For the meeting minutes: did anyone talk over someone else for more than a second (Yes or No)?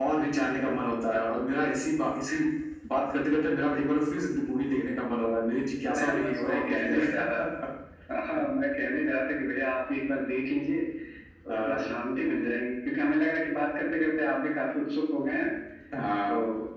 Yes